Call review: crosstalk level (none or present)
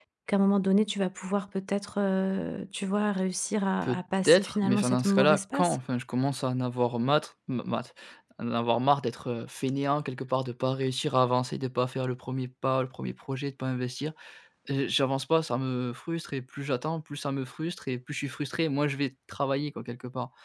present